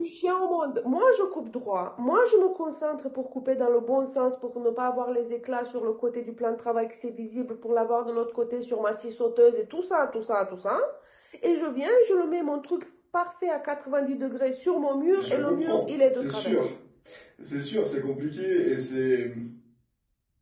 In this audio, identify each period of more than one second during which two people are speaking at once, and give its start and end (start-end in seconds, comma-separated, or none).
15.2-16.6